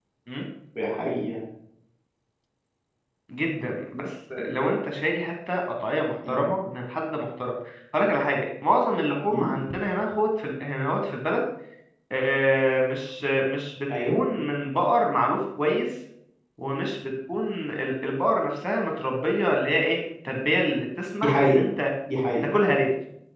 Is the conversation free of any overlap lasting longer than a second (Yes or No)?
Yes